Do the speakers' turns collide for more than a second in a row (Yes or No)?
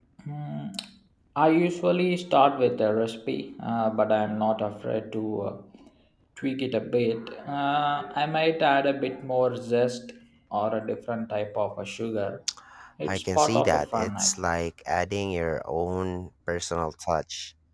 Yes